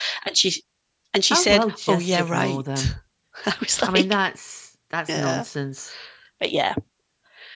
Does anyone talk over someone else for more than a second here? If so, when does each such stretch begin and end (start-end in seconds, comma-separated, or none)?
1.3-2.9